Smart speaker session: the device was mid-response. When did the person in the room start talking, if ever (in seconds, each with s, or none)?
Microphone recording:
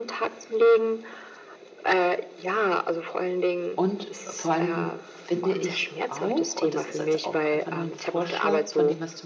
3.8 s